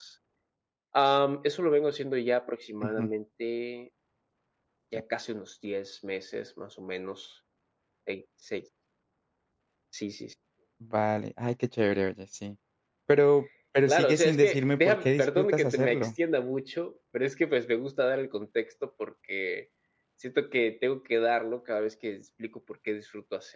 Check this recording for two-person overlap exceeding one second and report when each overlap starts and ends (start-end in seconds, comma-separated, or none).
13.9-16.1